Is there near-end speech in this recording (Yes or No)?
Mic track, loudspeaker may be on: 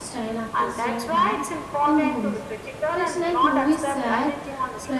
Yes